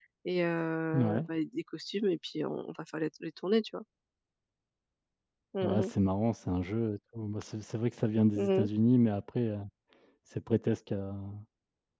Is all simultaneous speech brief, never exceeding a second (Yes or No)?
Yes